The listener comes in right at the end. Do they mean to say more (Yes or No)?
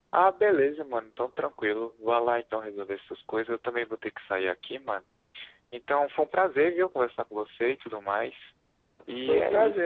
Yes